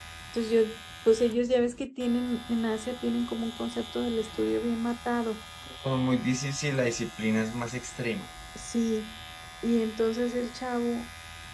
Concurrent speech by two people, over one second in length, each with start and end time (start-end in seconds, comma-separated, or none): none